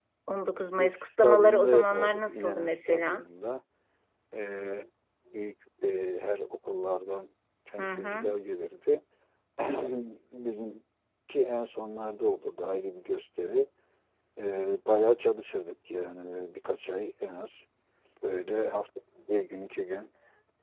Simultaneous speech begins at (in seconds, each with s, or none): 0.8 s